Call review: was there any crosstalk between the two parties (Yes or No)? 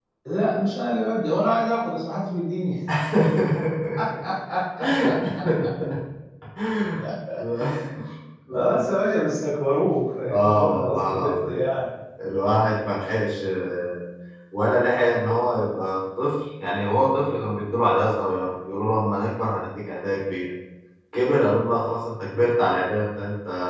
Yes